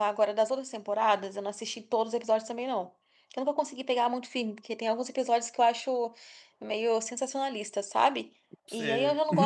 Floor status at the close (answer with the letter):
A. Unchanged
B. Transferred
A